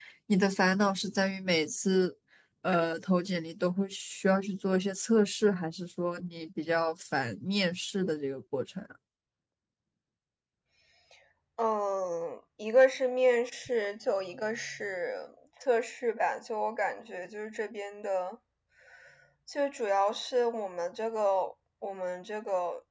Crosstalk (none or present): none